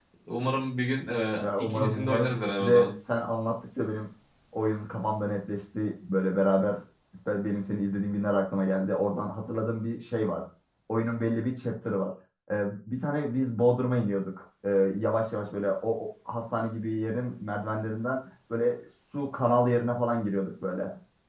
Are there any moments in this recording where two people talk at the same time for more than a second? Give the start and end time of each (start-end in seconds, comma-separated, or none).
1.4-2.9